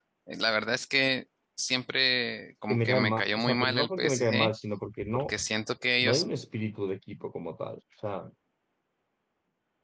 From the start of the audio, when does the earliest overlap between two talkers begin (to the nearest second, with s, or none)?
3 s